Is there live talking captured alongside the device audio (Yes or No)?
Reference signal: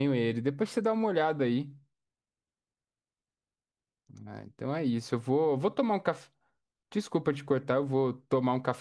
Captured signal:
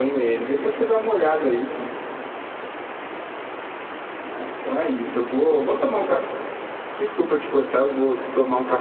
No